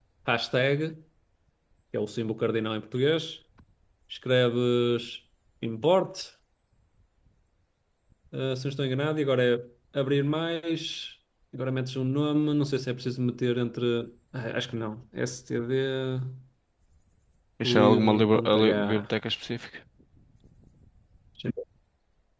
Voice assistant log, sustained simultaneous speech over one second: present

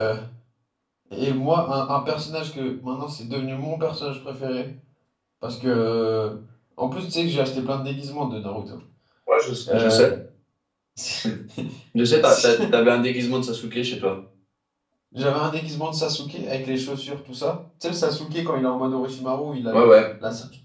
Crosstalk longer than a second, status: none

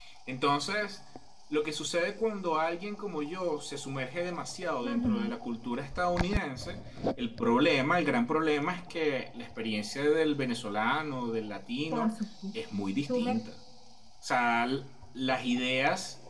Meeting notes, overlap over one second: none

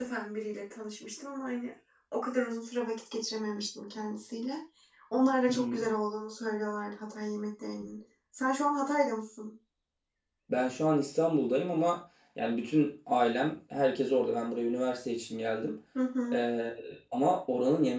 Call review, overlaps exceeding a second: none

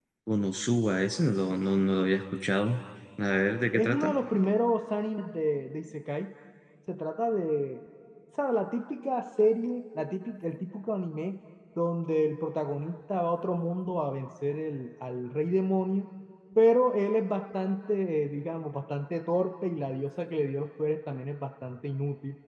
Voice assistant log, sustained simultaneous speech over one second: none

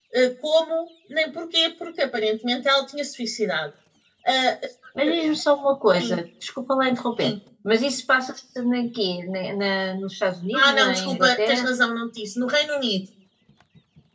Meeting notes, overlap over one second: present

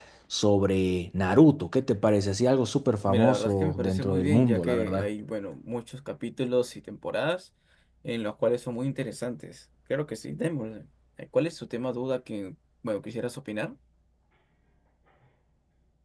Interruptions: present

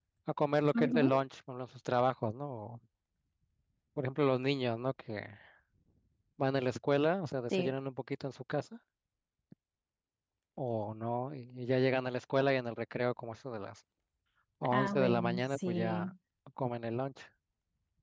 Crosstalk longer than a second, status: present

